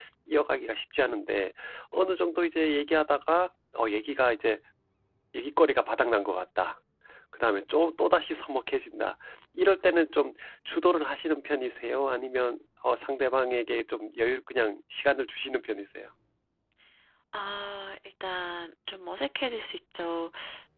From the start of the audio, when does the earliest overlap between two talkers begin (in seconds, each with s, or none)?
none